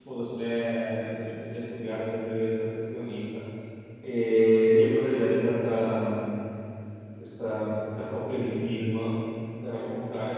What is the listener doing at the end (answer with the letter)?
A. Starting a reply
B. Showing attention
B